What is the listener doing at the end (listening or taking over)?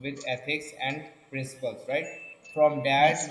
listening